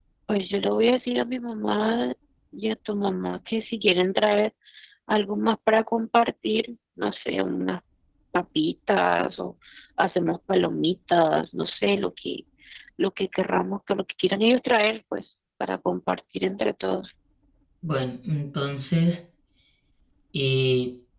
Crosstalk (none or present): none